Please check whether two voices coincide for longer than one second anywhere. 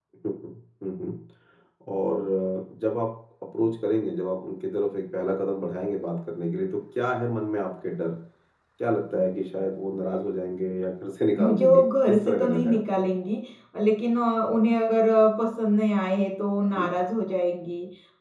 Yes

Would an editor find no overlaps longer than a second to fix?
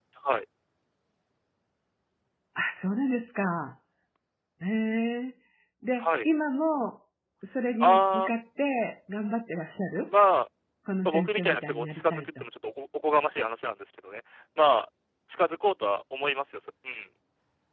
No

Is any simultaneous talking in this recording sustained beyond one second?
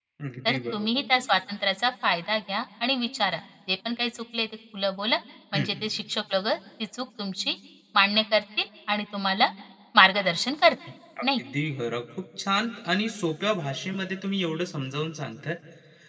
No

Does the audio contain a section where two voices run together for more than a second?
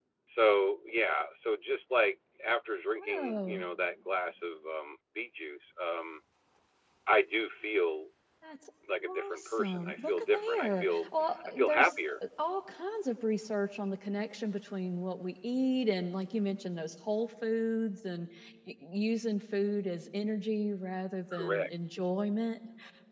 Yes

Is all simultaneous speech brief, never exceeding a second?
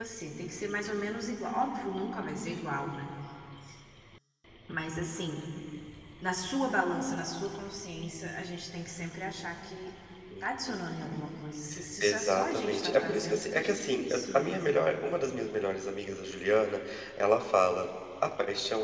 No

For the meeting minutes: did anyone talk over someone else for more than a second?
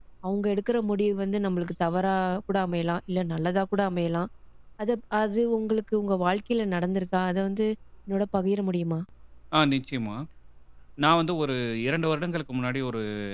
No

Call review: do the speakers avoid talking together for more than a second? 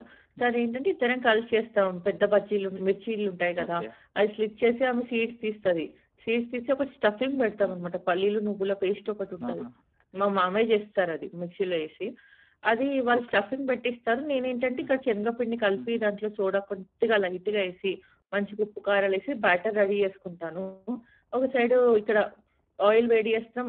Yes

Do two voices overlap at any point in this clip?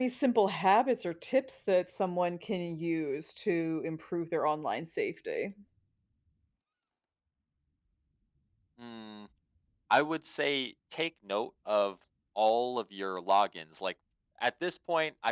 No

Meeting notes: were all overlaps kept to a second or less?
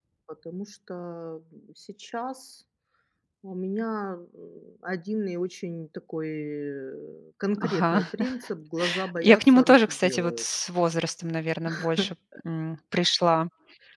No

